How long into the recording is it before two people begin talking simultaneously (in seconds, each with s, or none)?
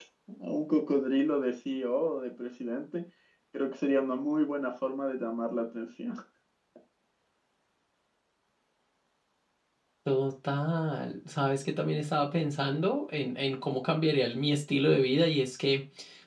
none